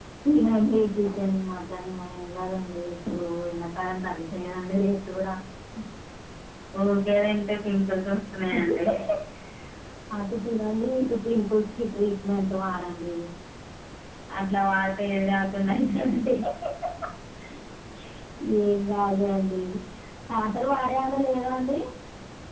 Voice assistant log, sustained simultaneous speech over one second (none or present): none